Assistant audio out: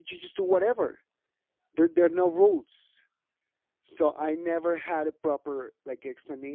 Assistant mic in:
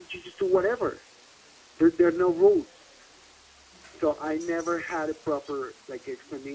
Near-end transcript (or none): none